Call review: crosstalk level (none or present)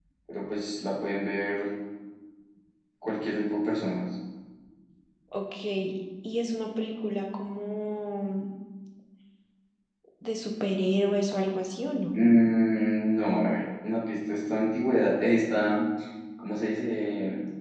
none